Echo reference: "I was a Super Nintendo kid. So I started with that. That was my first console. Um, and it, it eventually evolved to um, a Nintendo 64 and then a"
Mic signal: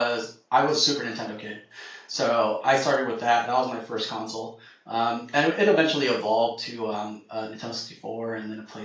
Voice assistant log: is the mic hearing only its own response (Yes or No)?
Yes